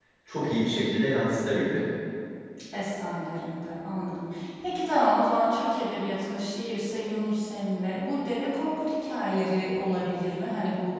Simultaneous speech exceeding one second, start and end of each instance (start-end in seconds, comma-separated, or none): none